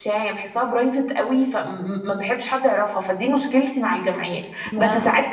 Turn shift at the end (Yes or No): No